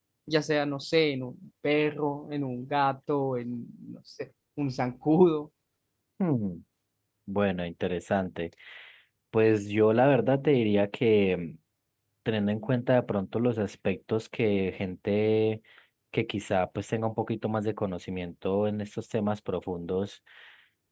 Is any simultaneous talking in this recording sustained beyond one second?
No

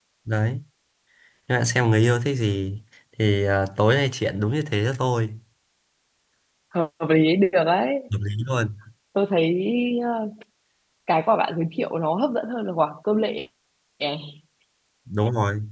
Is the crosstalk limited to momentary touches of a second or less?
Yes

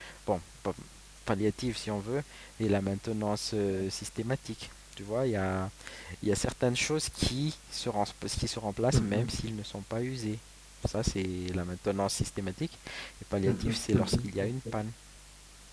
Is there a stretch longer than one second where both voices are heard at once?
Yes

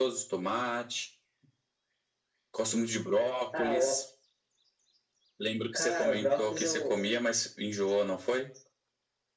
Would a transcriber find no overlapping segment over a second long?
No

